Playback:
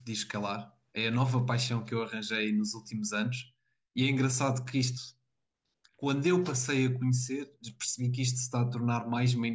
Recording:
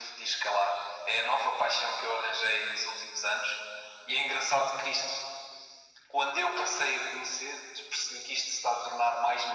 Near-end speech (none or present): none